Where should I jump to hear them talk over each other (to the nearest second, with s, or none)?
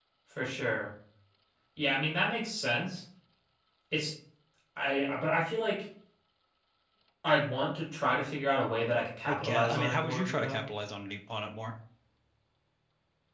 9 s